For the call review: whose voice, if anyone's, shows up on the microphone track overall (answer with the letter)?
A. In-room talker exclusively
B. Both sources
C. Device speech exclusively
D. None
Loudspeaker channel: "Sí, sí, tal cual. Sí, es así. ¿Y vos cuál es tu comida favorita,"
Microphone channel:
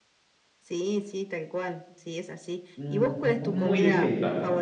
B